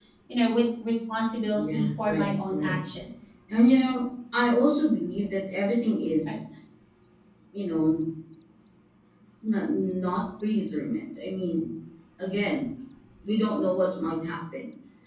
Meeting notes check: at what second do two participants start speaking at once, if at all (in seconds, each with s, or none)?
1.5 s